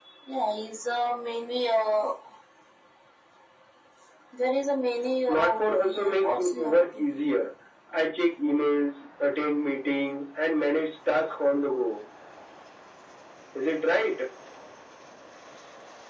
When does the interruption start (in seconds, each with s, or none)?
5.3 s